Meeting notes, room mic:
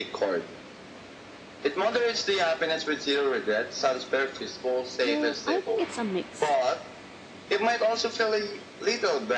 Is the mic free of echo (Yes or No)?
No